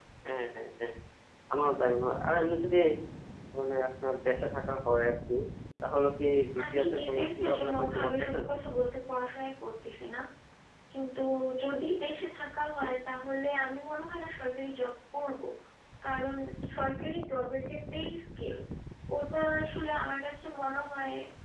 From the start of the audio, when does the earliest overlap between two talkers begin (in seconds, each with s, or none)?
6.6 s